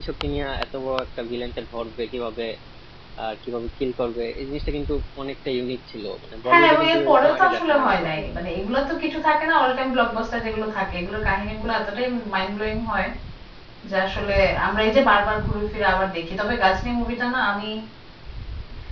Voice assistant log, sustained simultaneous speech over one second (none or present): present